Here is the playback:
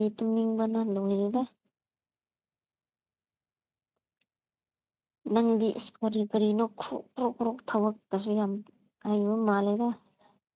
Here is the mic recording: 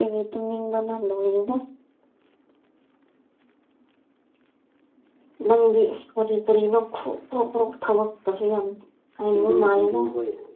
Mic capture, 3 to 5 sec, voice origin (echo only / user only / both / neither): neither